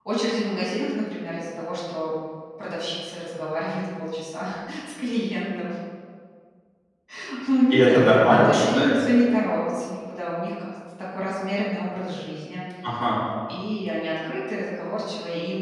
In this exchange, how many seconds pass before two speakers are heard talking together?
7.7 s

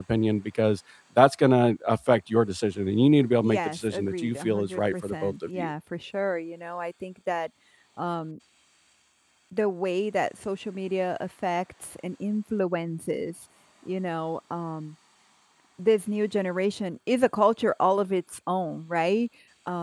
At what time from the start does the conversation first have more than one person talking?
3.4 s

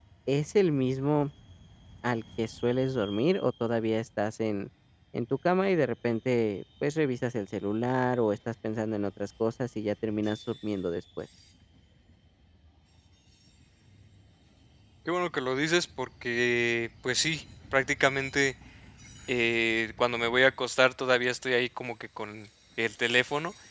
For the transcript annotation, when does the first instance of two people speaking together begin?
none

